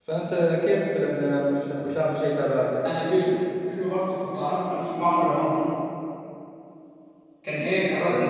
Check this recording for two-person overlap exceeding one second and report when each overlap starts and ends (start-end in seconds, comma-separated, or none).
none